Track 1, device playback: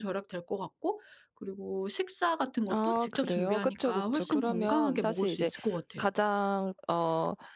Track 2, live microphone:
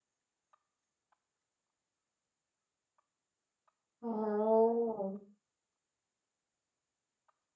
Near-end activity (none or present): present